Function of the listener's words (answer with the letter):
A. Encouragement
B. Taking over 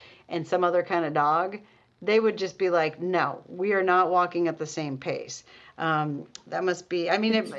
A